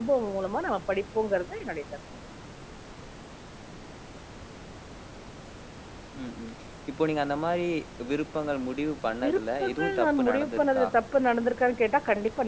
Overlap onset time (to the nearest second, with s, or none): 9 s